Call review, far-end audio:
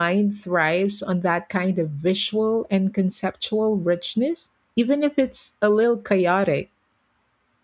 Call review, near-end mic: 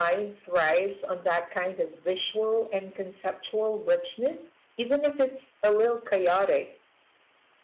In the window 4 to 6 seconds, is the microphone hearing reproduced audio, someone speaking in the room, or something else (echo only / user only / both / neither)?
echo only